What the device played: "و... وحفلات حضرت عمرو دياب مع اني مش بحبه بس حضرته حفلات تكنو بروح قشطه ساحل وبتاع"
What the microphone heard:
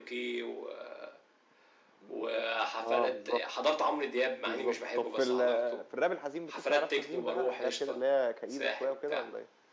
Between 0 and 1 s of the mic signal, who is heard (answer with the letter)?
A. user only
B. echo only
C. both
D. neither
B